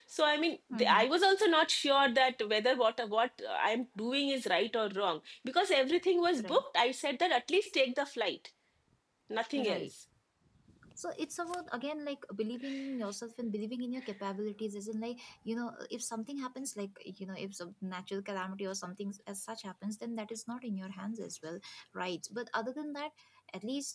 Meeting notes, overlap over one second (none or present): none